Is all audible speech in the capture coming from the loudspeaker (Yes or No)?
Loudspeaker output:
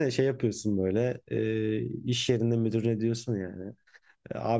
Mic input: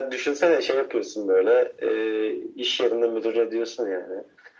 Yes